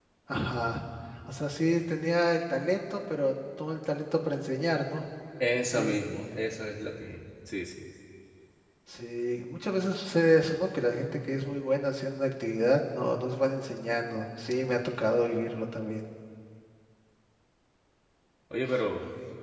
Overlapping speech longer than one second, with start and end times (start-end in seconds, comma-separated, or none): none